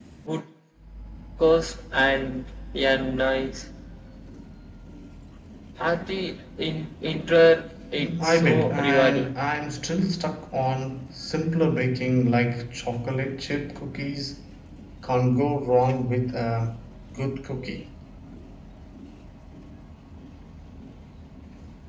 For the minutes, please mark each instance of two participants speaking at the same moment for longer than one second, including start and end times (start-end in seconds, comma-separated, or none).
8.0-9.3